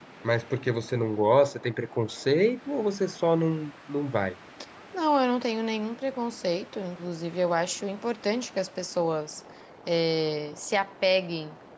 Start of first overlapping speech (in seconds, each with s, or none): none